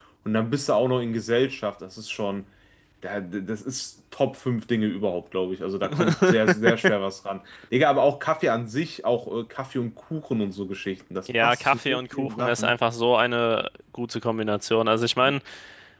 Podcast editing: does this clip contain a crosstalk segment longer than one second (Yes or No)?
Yes